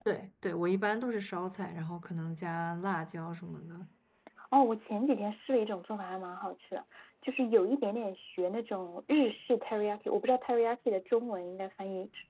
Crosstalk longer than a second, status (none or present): none